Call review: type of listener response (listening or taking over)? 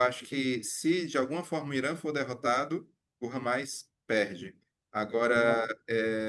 listening